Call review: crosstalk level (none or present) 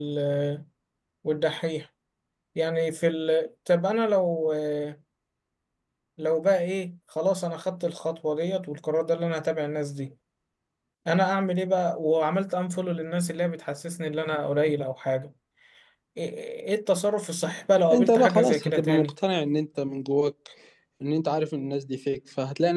present